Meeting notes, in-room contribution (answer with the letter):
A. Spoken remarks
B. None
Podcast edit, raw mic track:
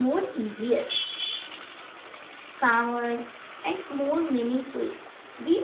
B